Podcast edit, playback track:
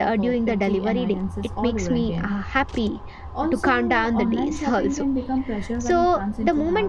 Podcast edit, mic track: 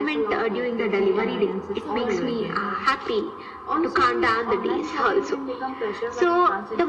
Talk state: both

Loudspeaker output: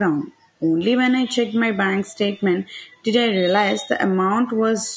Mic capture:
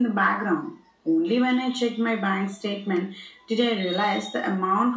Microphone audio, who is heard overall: echo only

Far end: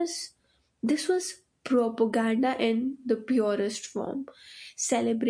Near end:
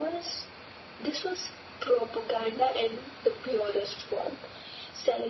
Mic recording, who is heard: echo only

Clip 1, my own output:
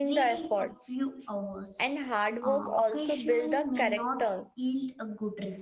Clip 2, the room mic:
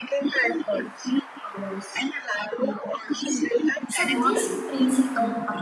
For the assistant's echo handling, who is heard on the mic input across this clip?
both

